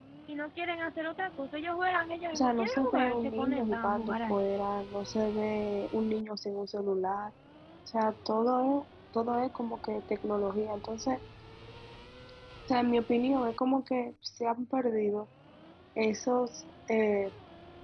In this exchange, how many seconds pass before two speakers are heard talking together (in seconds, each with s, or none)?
2.3 s